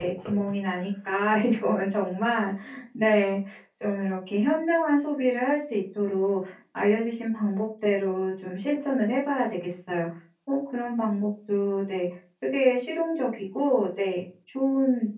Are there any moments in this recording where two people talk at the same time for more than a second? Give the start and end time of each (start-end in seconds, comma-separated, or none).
none